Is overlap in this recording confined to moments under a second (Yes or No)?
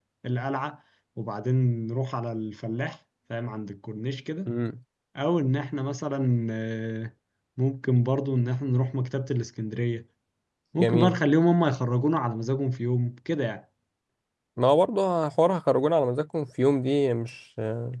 Yes